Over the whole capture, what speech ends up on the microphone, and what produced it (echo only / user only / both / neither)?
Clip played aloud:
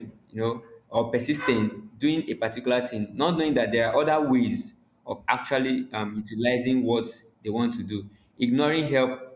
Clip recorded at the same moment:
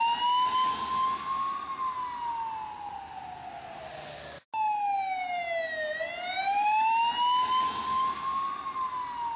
neither